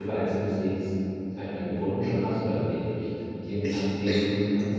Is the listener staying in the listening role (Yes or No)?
No